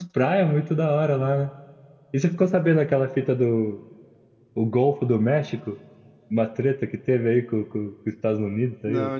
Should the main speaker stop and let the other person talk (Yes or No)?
Yes